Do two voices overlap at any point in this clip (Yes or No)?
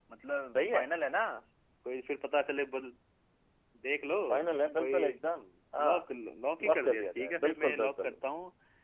Yes